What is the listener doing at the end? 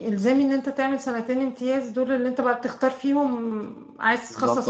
taking over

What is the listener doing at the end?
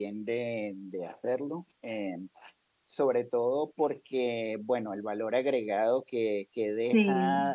listening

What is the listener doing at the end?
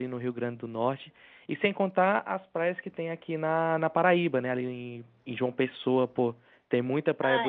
taking over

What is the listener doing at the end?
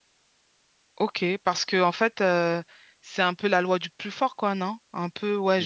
listening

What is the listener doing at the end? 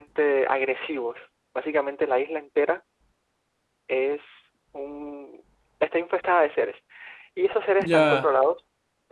listening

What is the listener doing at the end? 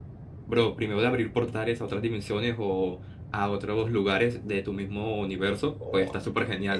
taking over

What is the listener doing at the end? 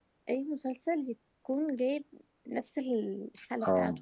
taking over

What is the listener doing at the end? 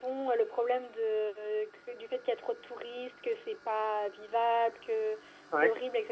listening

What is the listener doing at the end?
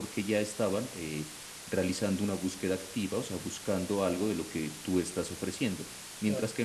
listening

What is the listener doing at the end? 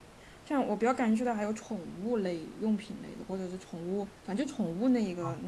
taking over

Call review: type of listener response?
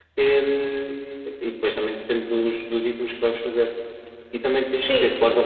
listening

